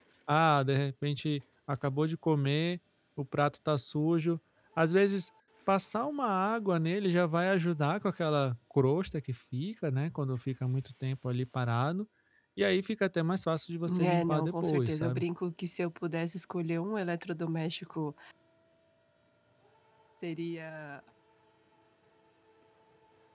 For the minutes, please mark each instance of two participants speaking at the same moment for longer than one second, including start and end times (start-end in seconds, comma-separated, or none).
14.0-15.2